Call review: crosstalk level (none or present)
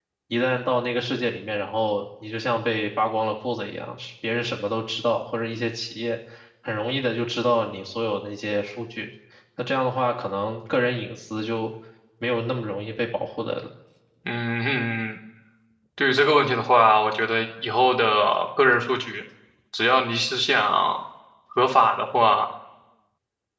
none